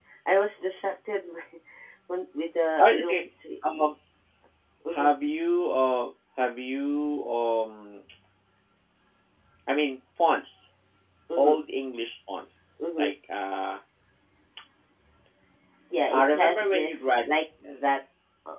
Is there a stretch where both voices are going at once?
Yes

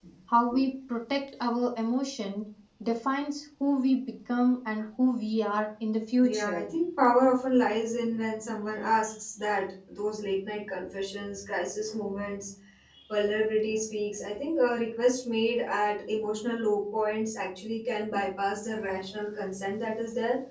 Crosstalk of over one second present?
No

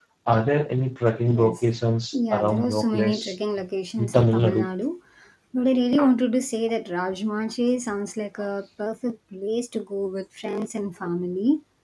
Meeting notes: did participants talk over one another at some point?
Yes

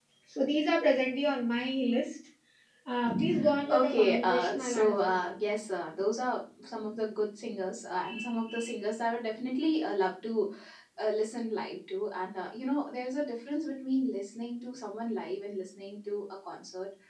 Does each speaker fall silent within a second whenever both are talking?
No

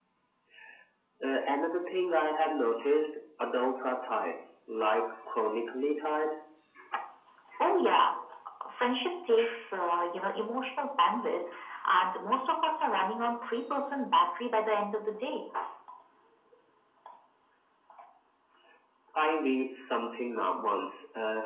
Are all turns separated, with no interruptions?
Yes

